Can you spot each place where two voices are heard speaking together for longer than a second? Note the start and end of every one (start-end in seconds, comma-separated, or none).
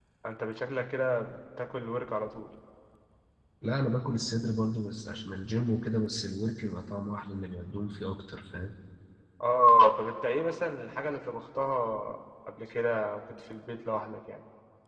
none